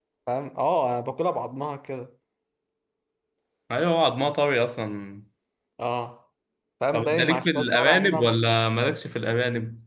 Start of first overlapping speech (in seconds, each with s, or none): 6.9 s